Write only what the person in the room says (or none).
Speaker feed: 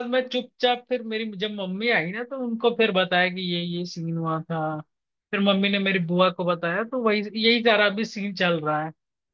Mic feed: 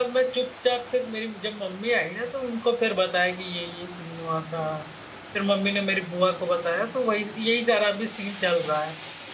none